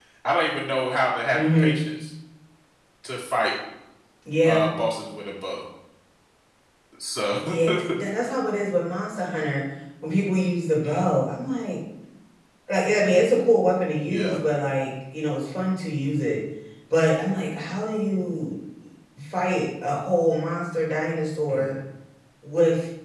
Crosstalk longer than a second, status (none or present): none